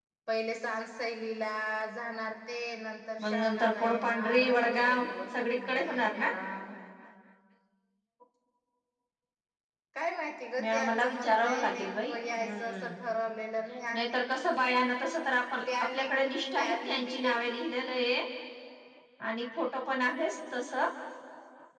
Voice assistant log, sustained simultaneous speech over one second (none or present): present